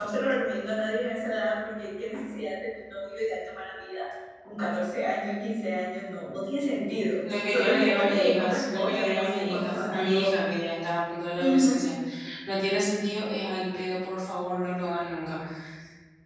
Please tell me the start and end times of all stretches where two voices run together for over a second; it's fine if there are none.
7.3-10.3

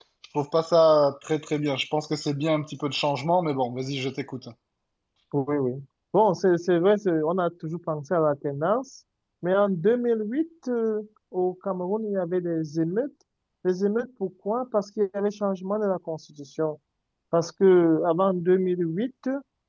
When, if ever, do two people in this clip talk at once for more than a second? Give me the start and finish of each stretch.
none

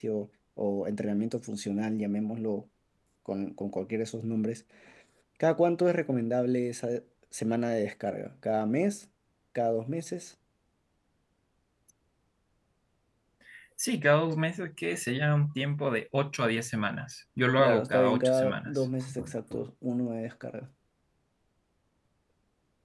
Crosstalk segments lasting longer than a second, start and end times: 17.6-18.9

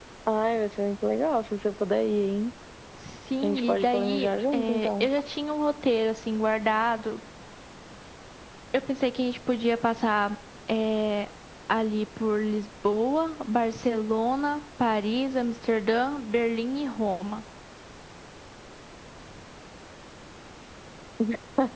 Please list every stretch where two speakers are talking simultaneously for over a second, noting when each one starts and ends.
3.4-5.1

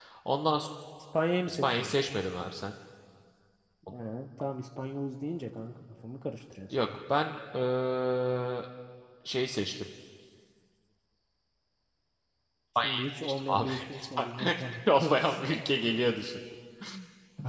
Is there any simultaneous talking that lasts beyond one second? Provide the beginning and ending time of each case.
12.8-14.5

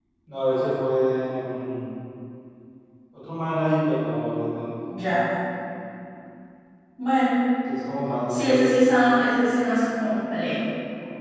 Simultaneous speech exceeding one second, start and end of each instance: none

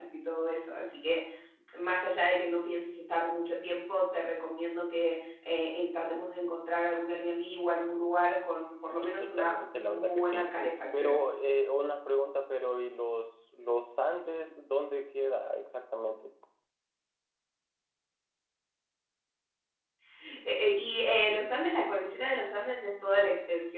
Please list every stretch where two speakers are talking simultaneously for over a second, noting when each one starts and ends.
9.0-10.4

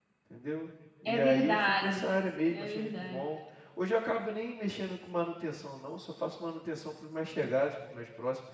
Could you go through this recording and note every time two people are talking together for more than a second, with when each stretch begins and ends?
1.1-3.2

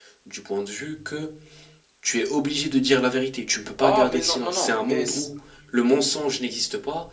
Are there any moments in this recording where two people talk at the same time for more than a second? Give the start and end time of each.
3.8-5.3

